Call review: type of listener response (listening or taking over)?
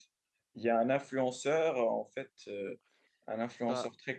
listening